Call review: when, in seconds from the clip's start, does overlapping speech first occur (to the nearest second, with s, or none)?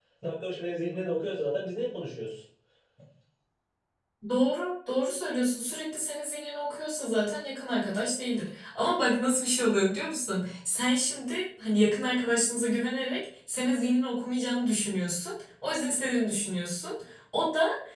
none